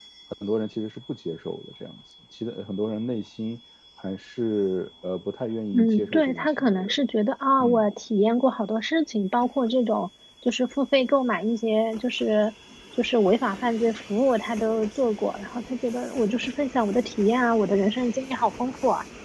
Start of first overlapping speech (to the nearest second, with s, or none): 6 s